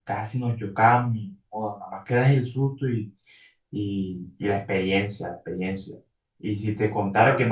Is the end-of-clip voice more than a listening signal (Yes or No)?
No